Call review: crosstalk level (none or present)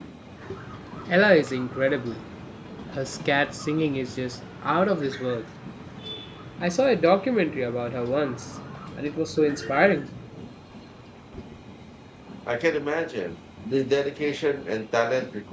none